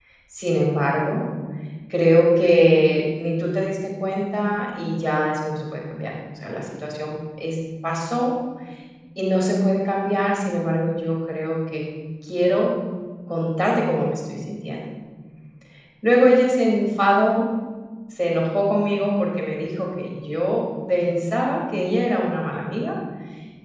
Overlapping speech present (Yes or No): No